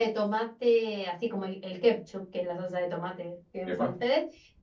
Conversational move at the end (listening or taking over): listening